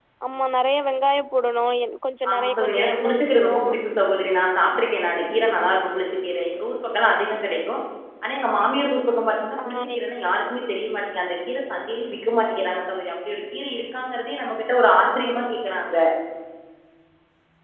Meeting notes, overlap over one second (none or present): present